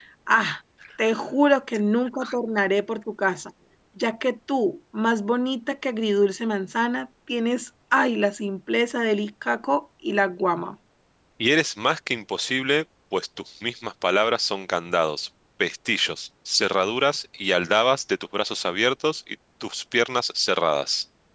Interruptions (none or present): none